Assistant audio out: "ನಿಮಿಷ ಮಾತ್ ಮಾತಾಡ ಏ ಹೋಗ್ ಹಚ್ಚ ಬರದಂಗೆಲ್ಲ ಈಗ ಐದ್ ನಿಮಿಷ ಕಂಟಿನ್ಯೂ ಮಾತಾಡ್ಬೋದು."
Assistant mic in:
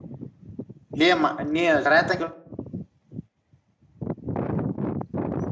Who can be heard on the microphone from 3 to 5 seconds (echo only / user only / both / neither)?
neither